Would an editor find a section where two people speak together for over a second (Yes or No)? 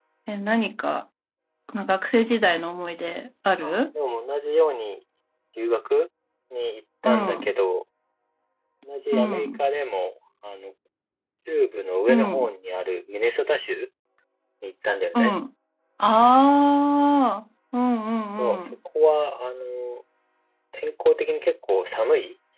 No